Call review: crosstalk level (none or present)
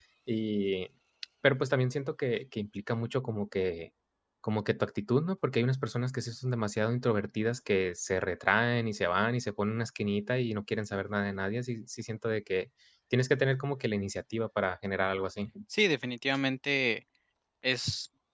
none